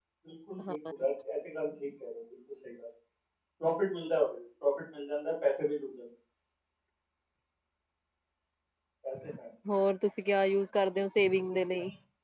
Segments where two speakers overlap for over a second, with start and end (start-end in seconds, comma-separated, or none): none